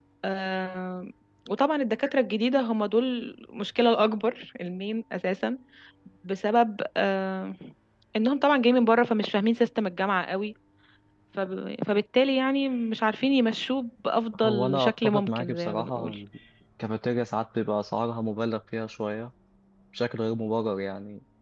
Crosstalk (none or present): present